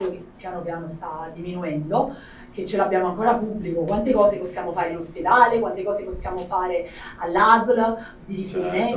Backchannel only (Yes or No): No